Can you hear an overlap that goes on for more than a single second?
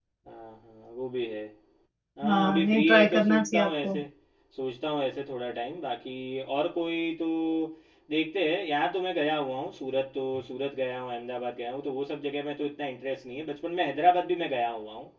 Yes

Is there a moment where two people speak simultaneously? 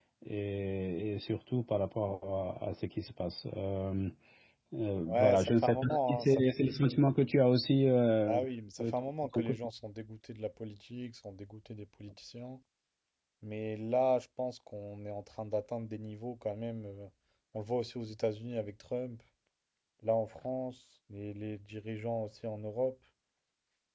Yes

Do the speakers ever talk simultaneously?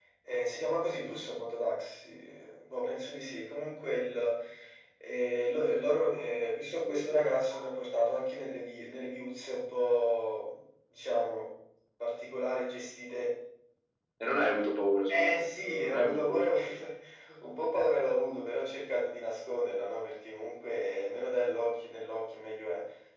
Yes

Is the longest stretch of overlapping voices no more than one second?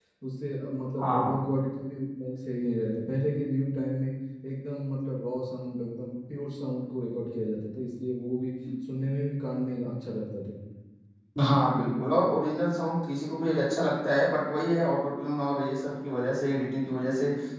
Yes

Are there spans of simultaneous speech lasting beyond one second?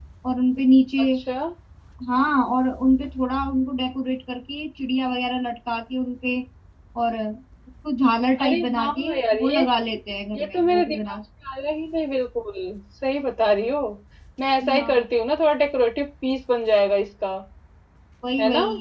Yes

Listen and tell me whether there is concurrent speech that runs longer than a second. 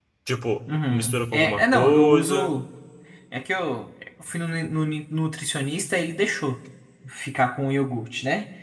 Yes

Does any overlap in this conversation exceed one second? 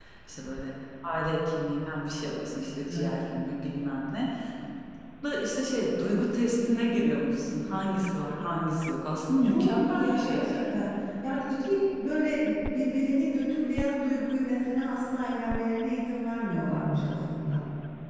Yes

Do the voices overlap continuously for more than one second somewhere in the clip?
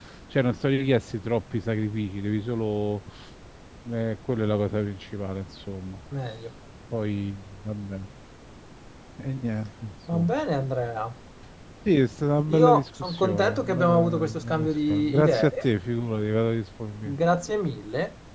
Yes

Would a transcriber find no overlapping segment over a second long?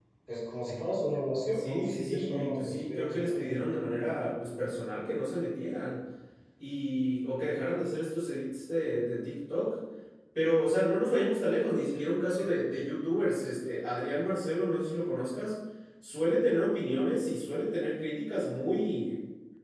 No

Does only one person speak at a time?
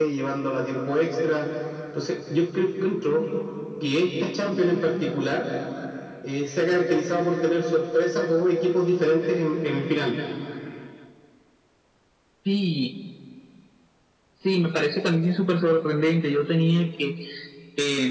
Yes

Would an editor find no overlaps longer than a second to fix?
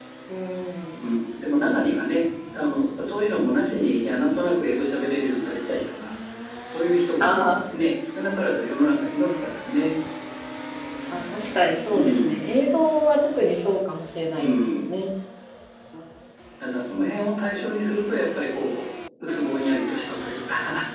Yes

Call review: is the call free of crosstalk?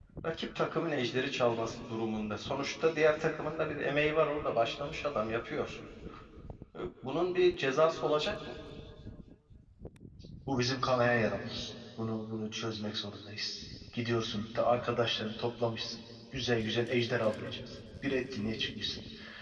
Yes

